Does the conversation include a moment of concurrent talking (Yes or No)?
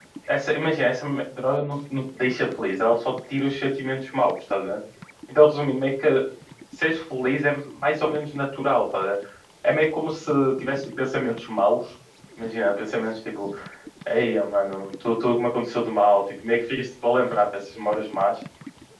No